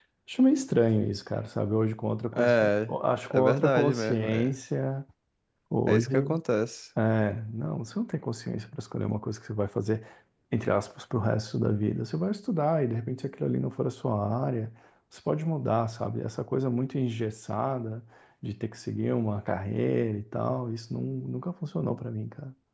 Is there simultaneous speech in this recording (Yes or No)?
Yes